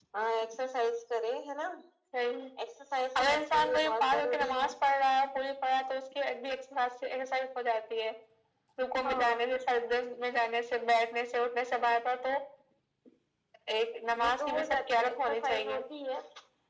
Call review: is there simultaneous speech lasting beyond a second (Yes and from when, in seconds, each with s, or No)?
Yes, from 3.2 s